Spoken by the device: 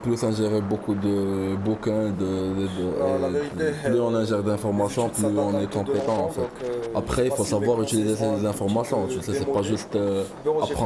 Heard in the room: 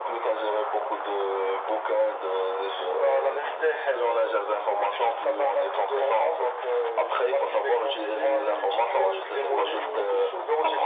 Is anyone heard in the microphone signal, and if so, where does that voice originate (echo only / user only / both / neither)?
both